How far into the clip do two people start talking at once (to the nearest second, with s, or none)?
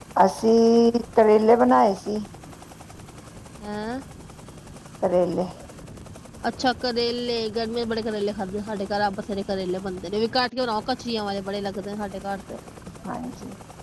none